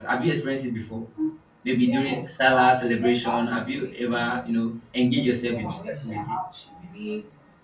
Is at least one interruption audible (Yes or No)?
Yes